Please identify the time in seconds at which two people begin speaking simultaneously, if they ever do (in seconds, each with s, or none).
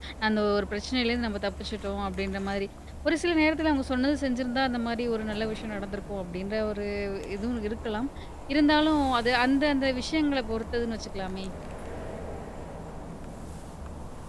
none